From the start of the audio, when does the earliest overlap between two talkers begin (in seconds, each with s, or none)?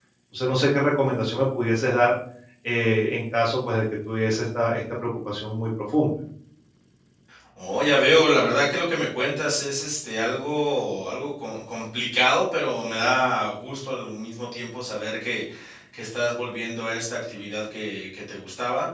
none